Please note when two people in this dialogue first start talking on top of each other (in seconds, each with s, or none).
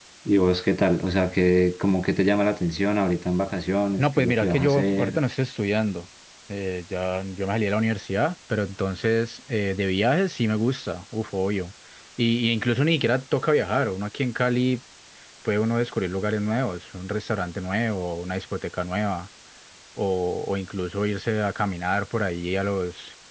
4.0 s